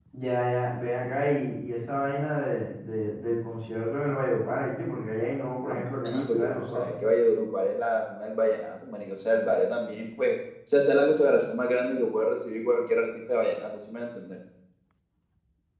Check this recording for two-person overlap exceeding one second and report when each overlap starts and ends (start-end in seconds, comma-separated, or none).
5.7-6.9